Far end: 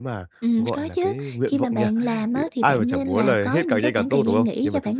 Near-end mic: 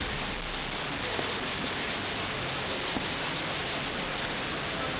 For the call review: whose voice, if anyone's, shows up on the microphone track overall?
neither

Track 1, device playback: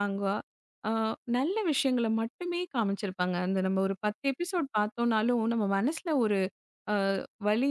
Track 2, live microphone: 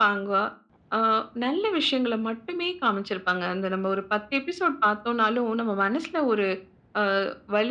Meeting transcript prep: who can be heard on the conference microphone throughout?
echo only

